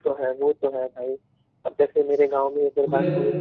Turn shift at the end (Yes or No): No